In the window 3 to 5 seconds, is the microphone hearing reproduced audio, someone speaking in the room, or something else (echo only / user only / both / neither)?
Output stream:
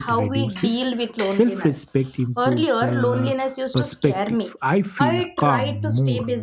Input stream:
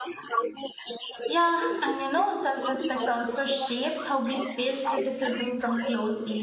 both